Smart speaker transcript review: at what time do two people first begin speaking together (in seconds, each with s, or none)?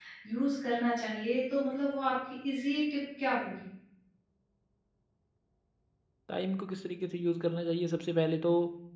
none